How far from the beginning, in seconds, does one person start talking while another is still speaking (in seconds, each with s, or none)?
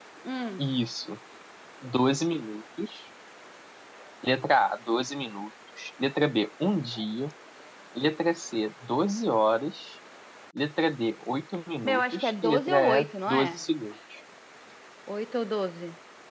11.8 s